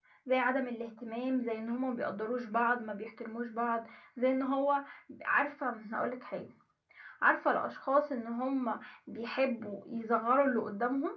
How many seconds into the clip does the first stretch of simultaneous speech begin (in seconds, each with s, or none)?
none